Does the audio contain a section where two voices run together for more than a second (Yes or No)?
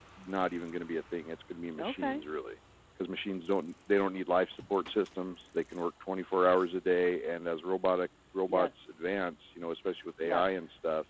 No